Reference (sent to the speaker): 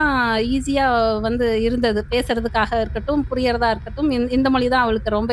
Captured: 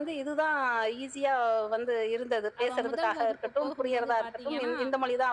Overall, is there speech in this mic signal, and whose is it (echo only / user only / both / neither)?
both